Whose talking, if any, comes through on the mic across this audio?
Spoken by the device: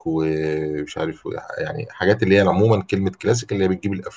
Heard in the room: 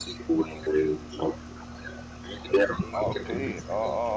both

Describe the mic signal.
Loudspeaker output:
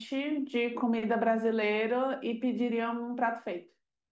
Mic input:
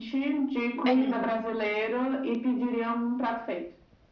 both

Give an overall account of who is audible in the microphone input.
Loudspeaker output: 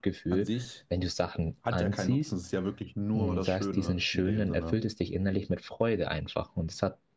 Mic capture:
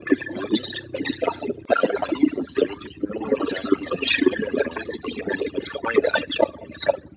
echo only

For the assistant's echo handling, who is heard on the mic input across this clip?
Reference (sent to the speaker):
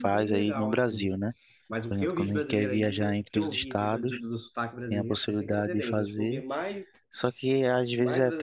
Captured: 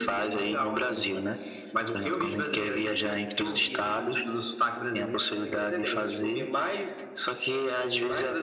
echo only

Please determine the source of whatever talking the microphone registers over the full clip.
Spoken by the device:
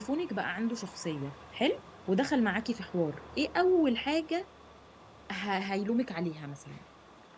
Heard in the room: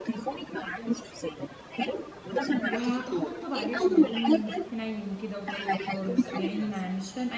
both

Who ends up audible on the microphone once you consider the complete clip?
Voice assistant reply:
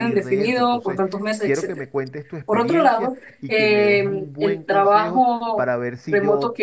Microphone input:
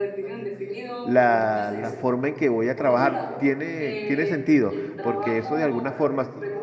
both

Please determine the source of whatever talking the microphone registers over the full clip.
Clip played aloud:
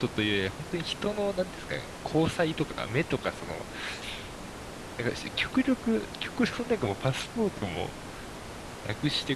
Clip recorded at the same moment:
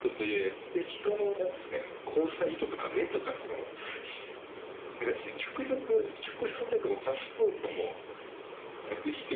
echo only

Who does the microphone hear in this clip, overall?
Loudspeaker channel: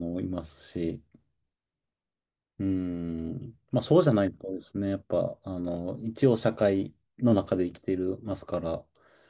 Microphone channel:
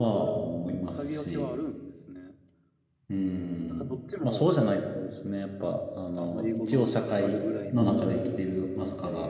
both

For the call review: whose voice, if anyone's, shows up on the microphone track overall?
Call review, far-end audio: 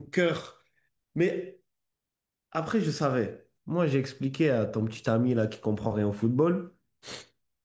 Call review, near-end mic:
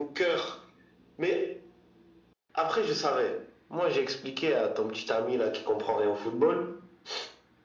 echo only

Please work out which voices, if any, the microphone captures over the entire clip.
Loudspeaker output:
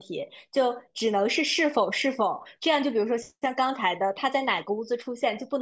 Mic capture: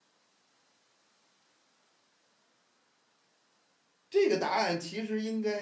user only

